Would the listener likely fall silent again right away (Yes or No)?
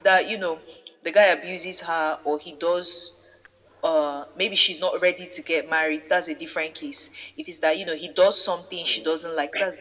Yes